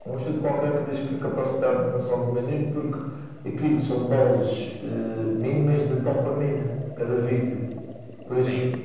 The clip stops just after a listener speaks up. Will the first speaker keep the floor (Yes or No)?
Yes